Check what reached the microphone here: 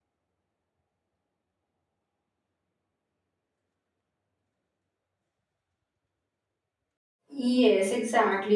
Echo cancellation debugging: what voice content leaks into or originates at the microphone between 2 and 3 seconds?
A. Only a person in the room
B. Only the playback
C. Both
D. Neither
D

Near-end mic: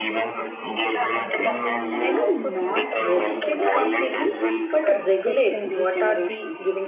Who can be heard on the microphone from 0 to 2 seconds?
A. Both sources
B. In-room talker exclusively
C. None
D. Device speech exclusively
A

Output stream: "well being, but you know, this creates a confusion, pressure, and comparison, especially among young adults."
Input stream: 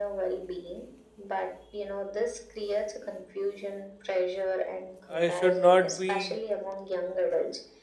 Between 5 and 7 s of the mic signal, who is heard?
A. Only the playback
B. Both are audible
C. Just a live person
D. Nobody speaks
B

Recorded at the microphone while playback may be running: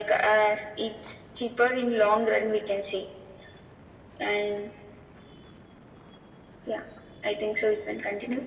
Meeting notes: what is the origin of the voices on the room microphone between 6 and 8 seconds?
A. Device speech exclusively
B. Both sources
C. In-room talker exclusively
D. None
A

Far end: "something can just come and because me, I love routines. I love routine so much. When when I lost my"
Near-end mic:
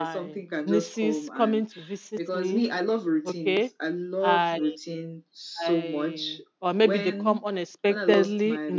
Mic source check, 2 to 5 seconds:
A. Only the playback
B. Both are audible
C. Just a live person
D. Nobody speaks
B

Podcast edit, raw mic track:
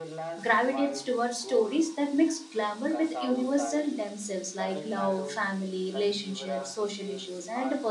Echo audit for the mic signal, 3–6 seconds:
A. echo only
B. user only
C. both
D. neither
C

